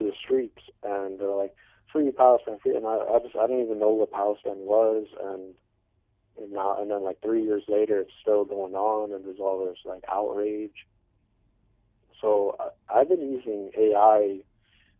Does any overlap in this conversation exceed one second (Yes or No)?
No